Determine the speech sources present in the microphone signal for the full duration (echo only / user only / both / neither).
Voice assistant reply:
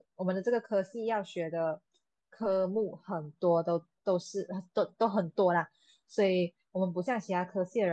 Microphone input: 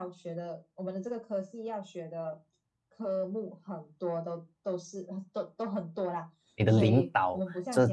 both